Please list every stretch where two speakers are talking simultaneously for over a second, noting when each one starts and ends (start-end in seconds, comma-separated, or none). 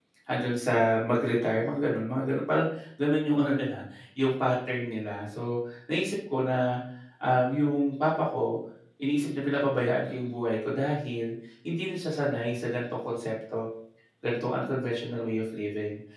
none